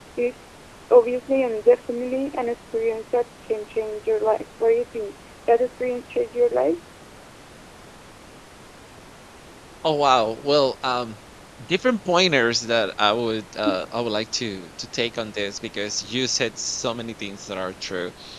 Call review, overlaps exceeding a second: none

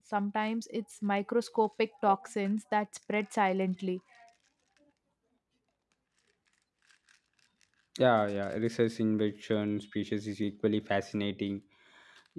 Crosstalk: none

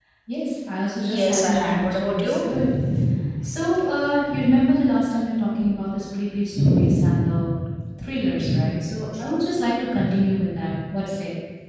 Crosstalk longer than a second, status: present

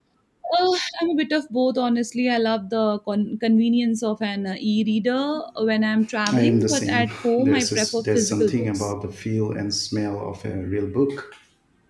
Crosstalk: present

